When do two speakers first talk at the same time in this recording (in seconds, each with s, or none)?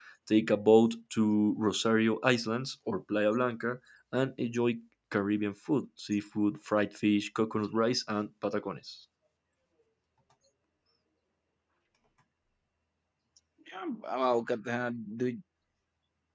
none